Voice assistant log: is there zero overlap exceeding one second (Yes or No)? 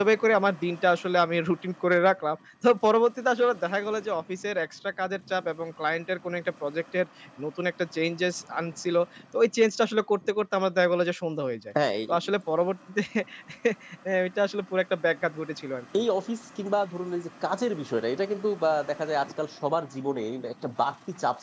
Yes